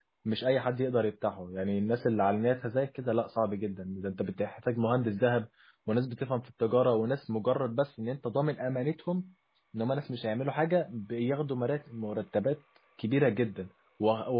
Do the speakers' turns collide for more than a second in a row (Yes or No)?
No